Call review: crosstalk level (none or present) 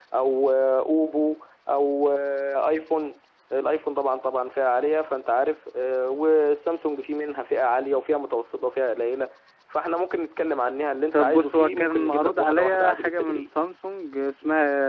present